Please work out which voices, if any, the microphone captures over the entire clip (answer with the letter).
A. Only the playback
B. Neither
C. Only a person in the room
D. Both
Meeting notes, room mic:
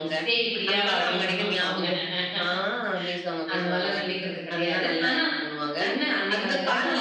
D